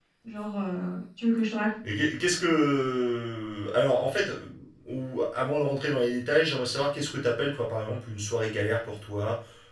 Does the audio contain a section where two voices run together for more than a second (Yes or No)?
No